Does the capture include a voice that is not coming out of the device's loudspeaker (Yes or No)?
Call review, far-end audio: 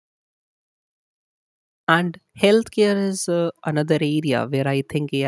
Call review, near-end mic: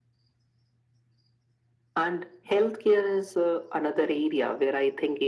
No